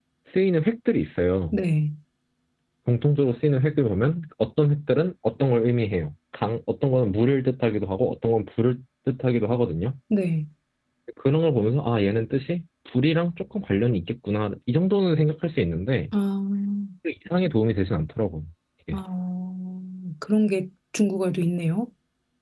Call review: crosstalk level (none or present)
none